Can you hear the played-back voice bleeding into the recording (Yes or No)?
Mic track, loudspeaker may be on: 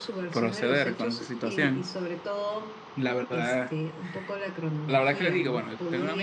Yes